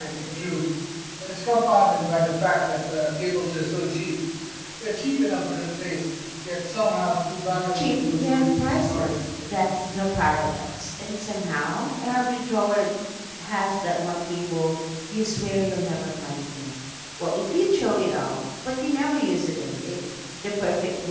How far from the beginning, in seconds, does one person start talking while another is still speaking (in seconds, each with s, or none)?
7.7 s